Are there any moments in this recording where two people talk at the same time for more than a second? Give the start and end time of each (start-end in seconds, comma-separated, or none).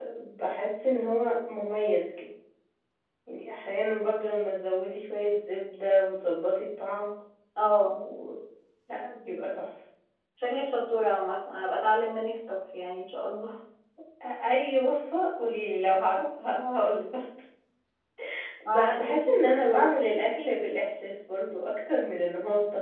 18.7-19.9